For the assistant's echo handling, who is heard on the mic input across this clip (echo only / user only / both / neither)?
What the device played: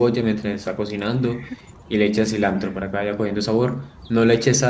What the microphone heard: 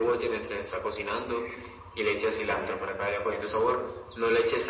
echo only